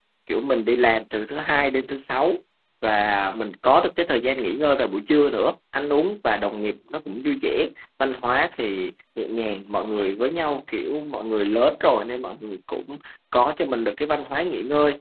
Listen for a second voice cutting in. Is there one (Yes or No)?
No